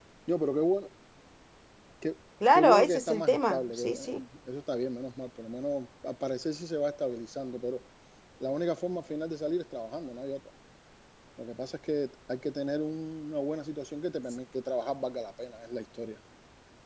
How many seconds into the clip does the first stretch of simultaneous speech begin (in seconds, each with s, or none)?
2.5 s